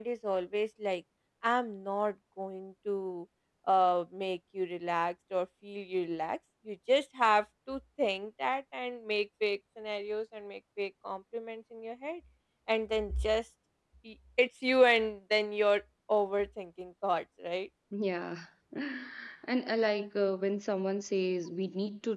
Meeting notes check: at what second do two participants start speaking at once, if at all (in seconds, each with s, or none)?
none